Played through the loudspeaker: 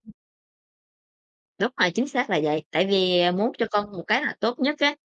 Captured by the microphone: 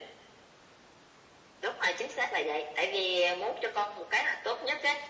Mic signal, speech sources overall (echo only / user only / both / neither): echo only